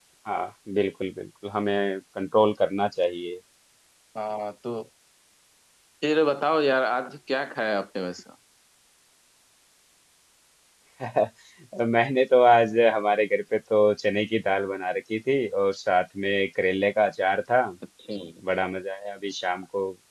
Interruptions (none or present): none